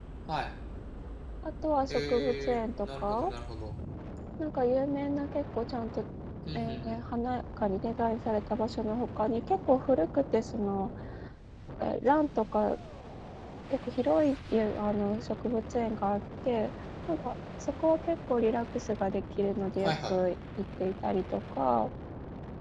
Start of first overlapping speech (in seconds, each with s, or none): 1.9 s